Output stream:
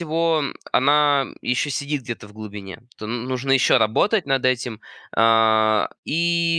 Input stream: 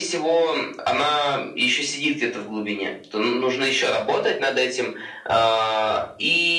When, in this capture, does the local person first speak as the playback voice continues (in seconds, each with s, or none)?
none